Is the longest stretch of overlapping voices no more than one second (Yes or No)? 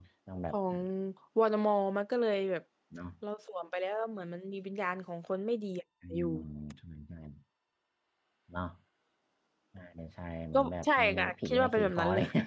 No